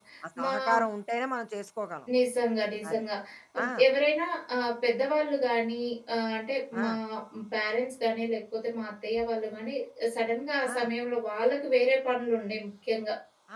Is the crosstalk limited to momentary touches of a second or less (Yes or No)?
Yes